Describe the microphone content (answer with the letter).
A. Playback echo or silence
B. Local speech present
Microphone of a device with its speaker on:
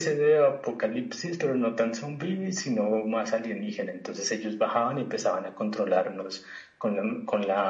A